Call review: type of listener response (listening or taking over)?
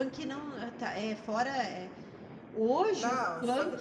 taking over